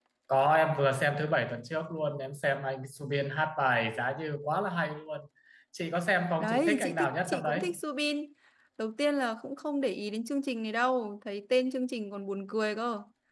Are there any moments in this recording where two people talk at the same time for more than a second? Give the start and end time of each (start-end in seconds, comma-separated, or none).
6.4-7.6